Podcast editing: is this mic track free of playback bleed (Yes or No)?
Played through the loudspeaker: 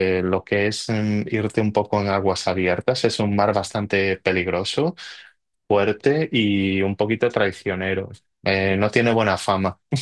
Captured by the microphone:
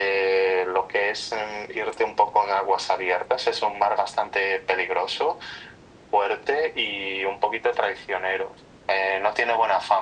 No